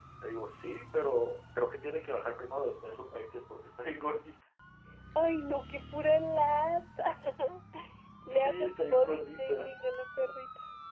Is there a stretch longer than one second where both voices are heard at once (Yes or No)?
Yes